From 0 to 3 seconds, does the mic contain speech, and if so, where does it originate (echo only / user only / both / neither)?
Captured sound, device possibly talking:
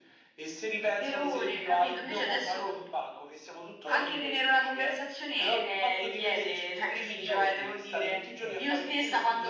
echo only